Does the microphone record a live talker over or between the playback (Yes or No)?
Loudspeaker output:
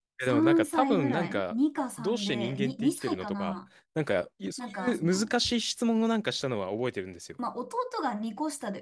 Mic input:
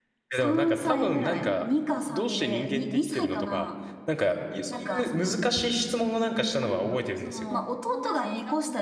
Yes